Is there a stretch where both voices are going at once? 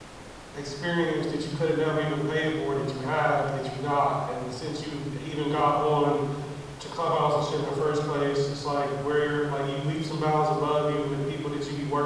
No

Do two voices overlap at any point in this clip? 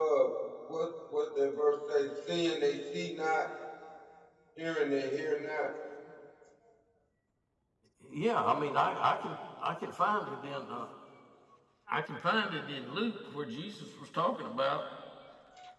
No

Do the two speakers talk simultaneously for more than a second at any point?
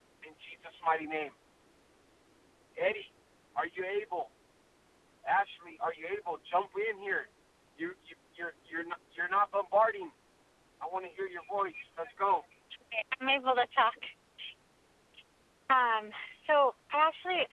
No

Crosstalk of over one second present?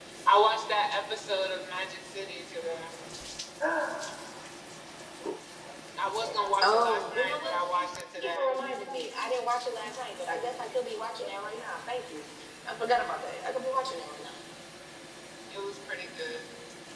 Yes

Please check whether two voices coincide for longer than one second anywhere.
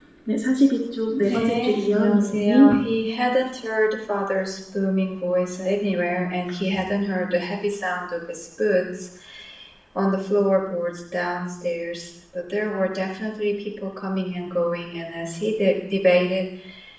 Yes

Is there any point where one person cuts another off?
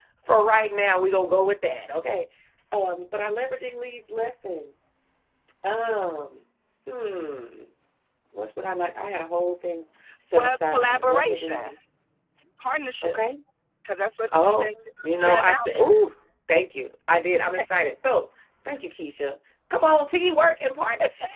Yes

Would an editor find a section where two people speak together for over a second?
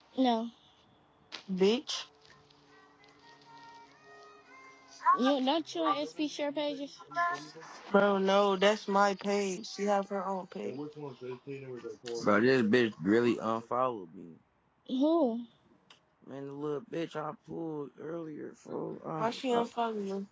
No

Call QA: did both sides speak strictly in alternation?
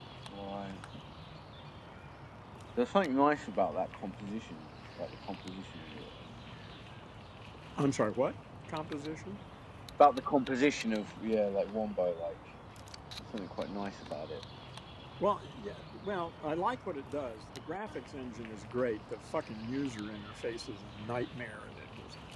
Yes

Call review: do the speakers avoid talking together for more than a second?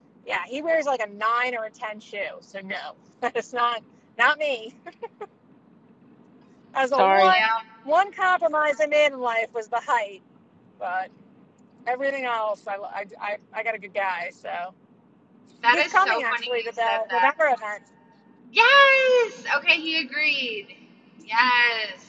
No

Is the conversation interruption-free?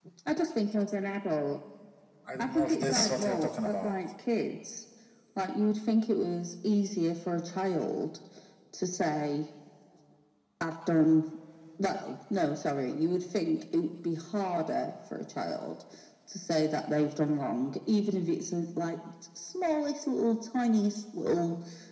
No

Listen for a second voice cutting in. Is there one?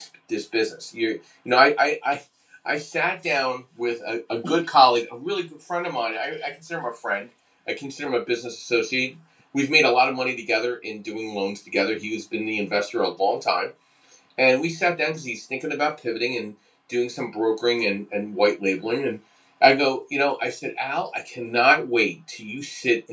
No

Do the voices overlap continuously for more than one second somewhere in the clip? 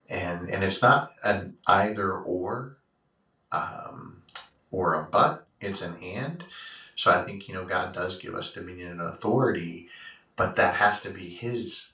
No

